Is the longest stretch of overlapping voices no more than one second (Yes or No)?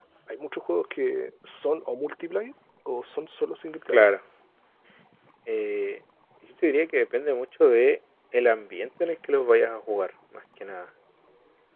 Yes